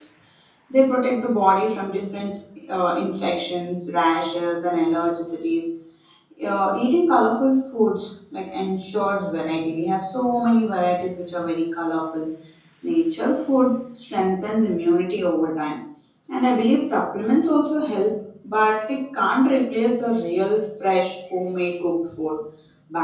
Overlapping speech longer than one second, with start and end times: none

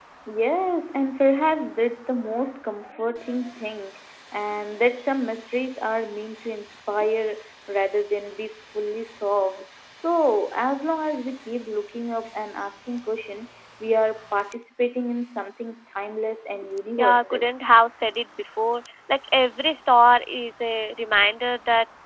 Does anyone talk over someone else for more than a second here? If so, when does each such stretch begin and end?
none

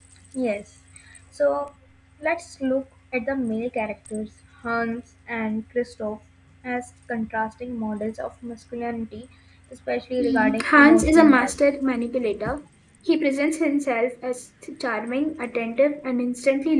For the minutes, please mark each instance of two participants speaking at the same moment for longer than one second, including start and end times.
10.2-11.6

